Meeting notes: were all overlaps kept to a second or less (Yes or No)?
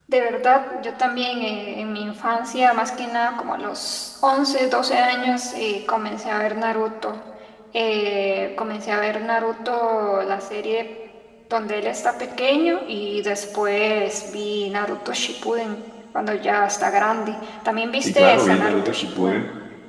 No